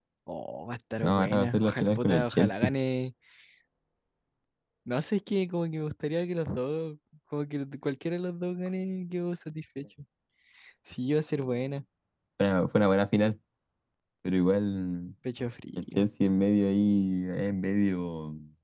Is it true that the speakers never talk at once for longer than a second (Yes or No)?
No